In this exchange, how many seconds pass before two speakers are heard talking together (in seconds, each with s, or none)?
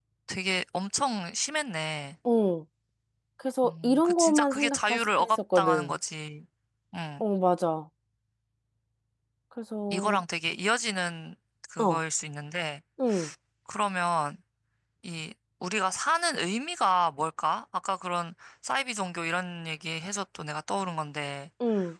3.6 s